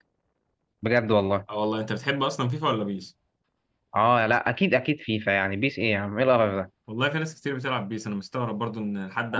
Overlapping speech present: No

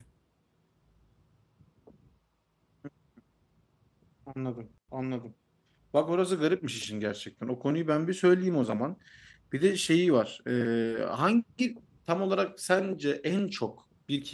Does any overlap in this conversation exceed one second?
No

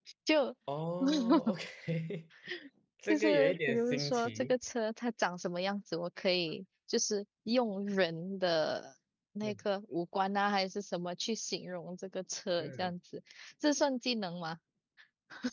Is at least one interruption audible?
Yes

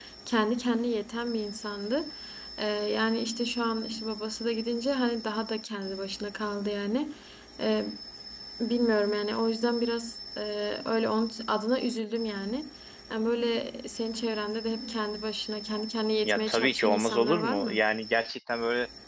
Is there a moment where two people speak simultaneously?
Yes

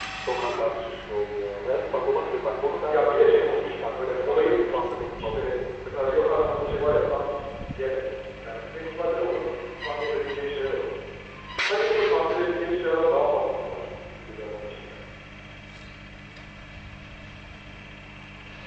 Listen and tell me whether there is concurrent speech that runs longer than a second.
Yes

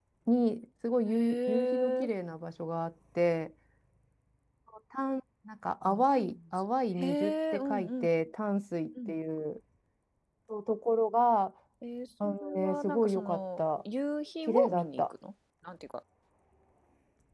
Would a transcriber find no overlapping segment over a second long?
No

